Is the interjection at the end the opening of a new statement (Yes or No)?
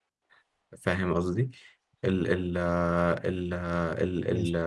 No